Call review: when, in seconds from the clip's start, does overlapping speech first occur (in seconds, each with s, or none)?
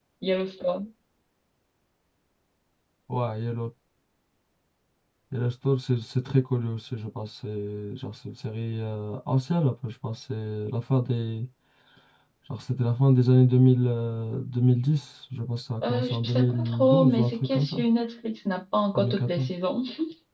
15.8 s